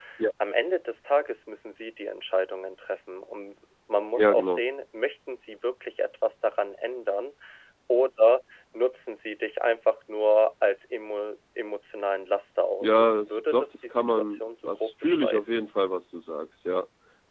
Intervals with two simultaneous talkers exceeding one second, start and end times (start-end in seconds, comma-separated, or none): 12.8-15.6